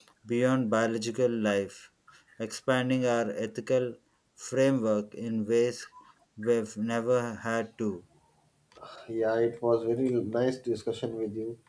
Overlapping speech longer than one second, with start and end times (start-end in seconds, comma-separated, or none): none